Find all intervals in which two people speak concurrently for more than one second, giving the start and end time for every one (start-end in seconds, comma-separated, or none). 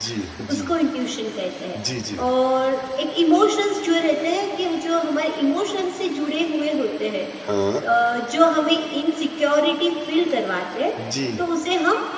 none